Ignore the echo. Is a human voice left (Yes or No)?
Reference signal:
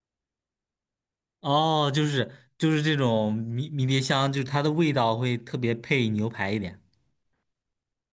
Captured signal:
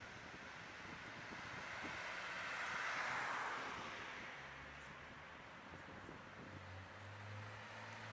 No